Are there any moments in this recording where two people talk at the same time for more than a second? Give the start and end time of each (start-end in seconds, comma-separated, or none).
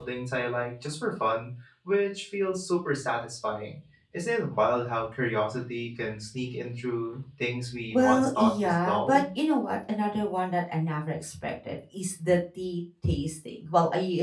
7.9-9.2